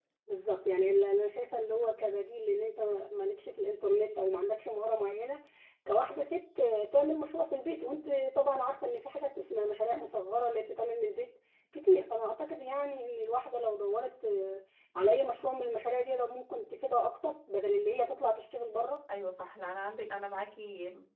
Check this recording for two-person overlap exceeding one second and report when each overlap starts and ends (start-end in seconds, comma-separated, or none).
none